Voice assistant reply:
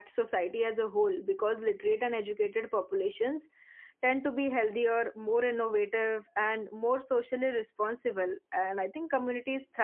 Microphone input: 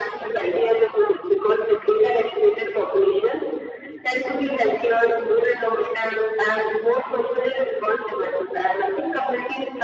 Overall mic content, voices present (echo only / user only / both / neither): echo only